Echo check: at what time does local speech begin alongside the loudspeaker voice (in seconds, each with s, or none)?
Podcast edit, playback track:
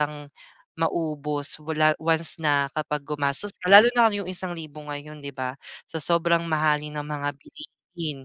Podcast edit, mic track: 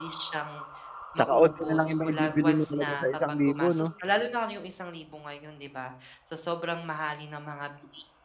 1.2 s